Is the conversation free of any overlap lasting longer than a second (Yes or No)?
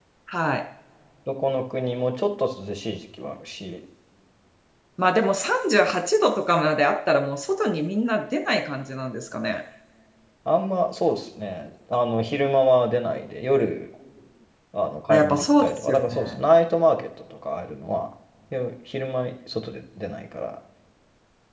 No